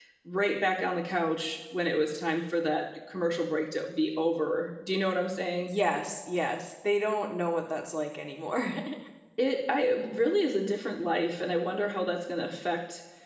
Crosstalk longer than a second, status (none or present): none